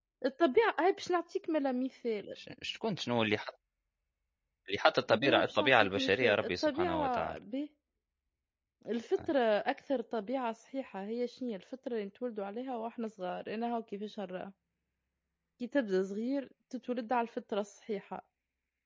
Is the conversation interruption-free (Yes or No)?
No